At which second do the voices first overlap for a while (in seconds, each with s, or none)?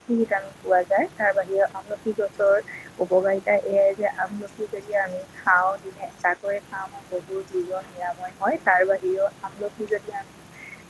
none